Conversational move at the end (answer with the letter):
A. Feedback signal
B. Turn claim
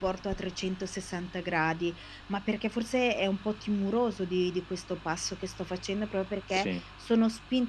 A